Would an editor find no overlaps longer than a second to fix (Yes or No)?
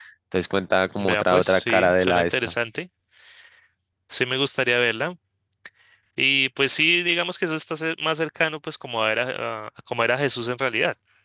No